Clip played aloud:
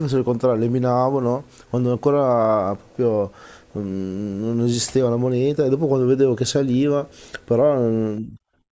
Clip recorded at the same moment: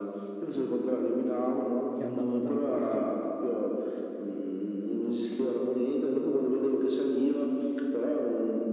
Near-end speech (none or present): present